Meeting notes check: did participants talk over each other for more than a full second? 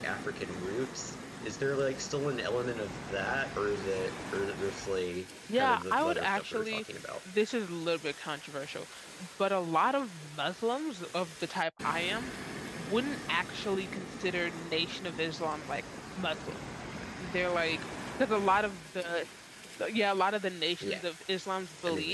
Yes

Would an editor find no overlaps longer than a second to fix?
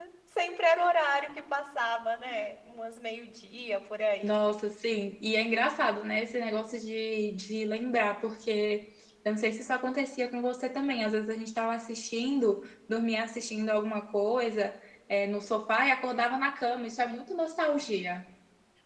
Yes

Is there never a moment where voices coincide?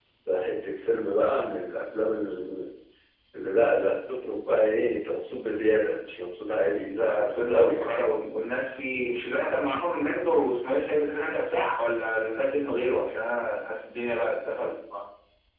No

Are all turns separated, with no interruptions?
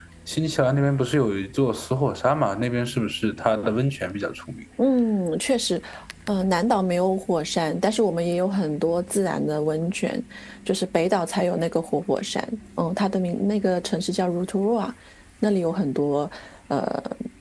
Yes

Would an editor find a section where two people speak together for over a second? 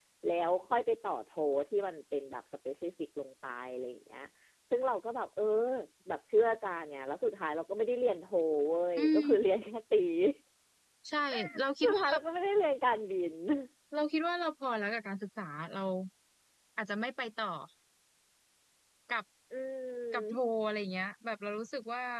No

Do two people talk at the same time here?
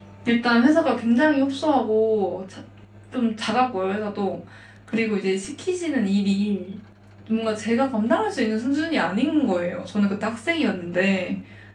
No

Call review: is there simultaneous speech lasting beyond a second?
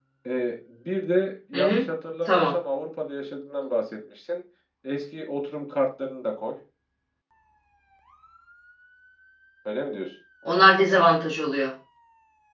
No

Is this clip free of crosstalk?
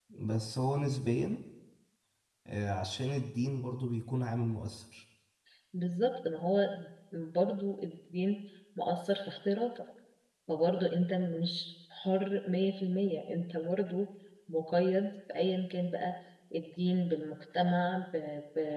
Yes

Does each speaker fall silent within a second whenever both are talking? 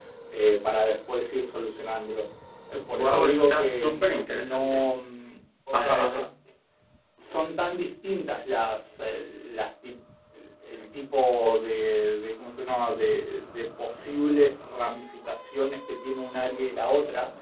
No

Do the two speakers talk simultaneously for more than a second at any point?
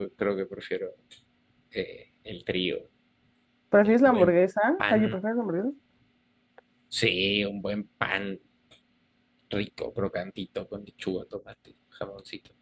No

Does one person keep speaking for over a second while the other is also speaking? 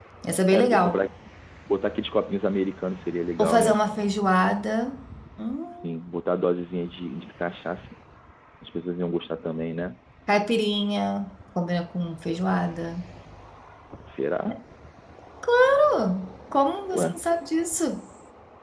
No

